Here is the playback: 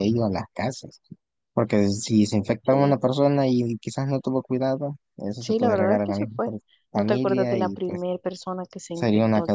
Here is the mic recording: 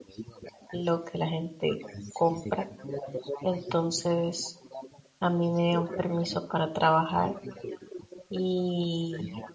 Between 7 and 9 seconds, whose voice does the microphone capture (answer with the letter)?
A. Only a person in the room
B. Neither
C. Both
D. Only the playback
C